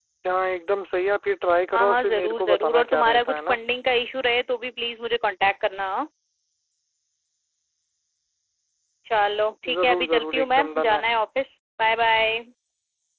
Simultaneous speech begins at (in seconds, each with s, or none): 1.7 s